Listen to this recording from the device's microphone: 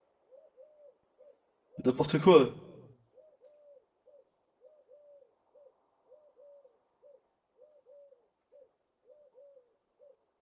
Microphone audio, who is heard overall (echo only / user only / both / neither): user only